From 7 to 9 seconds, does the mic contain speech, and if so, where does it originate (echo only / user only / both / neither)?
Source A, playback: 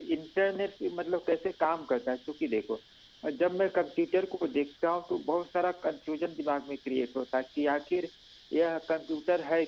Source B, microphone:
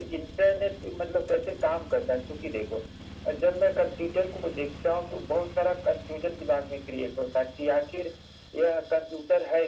echo only